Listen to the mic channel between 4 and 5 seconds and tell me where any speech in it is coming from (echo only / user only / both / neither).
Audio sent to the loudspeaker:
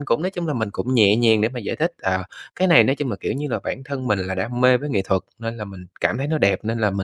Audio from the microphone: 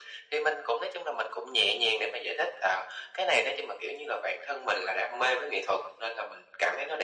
echo only